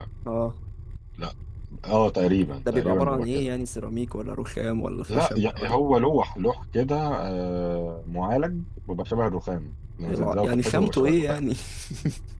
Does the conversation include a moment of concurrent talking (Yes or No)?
Yes